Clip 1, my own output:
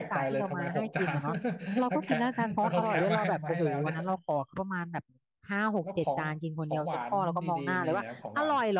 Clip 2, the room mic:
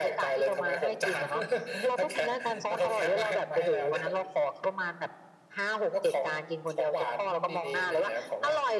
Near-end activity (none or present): none